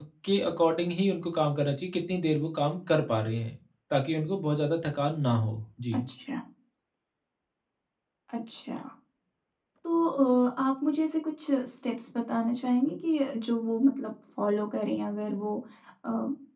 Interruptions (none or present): none